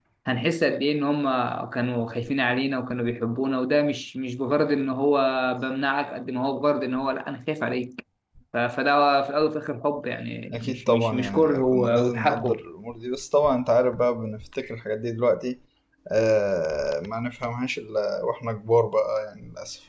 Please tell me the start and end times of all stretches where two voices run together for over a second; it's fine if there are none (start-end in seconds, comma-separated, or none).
10.5-12.6